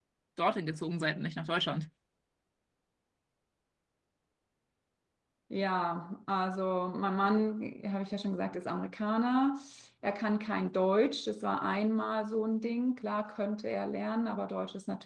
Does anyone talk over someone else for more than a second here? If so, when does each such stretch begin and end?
none

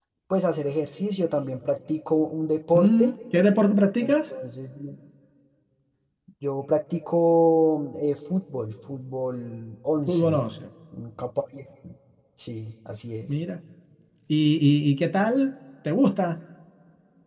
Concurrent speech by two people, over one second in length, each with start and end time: none

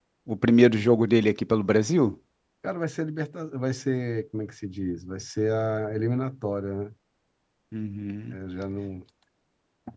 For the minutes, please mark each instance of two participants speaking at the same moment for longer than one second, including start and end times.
none

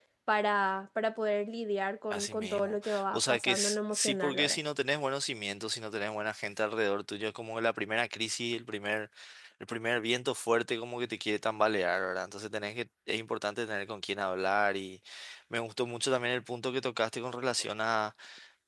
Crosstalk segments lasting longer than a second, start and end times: 2.1-4.6

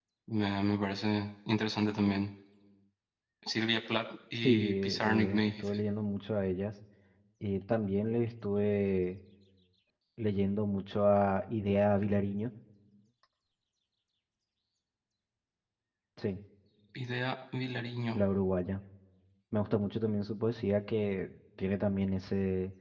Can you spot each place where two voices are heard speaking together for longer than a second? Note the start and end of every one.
4.4-5.8

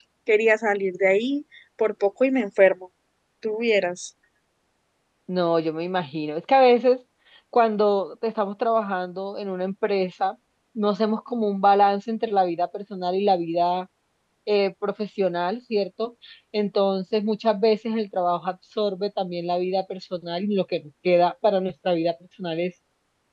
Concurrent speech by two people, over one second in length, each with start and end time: none

